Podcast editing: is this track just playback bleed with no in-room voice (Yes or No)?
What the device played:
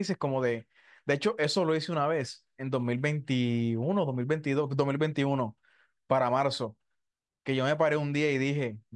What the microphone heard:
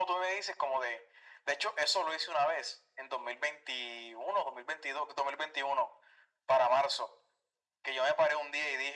Yes